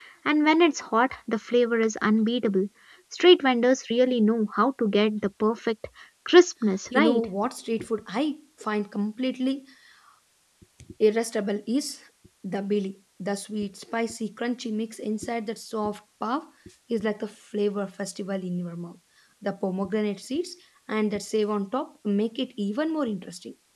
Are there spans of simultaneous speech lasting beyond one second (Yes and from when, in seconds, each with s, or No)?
No